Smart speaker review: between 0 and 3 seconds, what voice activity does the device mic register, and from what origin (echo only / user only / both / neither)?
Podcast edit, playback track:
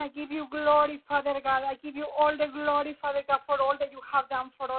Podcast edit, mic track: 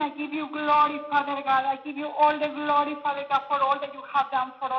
echo only